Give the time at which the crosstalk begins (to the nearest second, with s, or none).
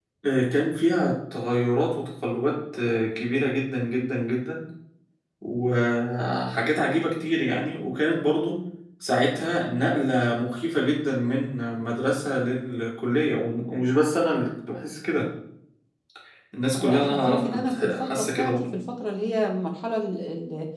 17 s